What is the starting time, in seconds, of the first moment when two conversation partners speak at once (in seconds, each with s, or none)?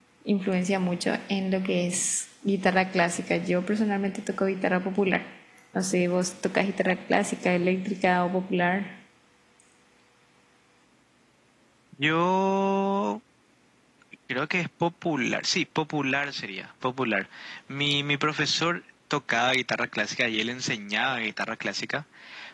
none